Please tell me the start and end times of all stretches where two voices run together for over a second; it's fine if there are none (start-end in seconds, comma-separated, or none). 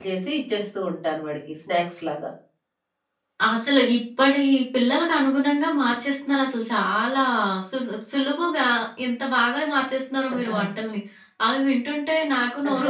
none